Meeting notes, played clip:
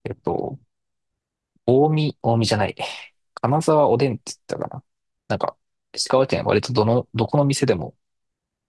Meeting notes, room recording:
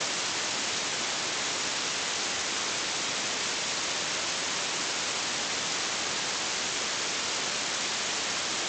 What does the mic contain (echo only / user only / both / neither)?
neither